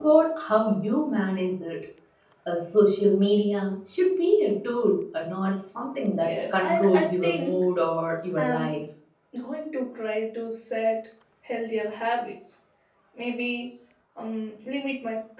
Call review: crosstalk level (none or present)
present